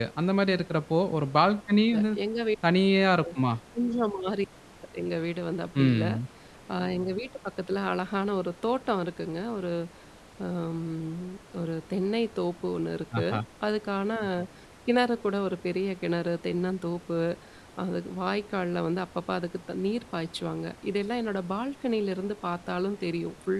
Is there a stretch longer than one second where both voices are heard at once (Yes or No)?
No